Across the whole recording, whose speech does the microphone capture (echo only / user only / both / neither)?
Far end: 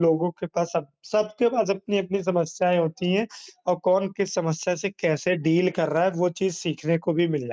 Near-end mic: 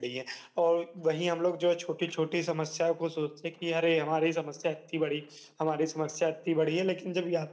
user only